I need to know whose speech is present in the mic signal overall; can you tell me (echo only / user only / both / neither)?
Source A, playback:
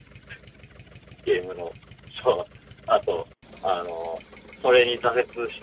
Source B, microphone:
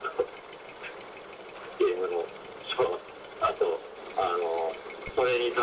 echo only